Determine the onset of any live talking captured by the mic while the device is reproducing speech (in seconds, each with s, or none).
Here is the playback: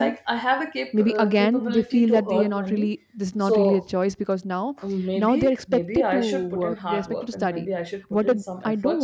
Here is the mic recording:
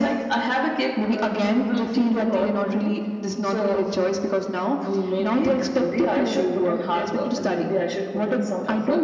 none